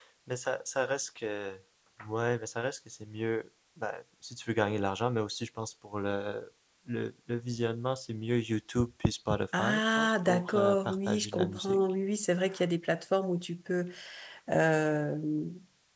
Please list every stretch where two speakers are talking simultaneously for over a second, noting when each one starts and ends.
9.6-11.8

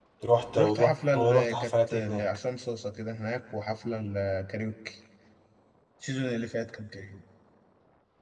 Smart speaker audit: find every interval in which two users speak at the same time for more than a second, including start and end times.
0.6-2.4

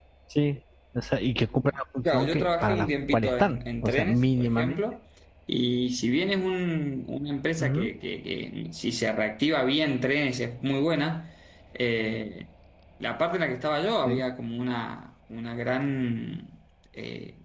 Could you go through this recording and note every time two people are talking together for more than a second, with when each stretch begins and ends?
2.0-4.7

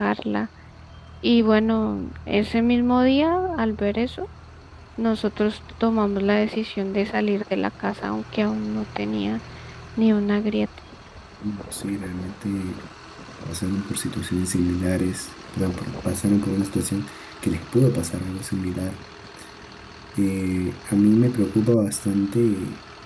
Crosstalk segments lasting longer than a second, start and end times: none

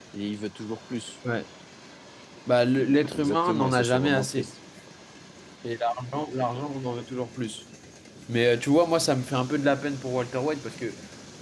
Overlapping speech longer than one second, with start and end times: 3.1-4.5

